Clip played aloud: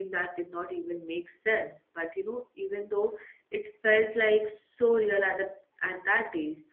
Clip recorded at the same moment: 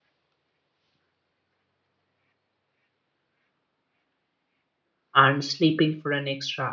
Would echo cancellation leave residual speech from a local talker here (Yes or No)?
Yes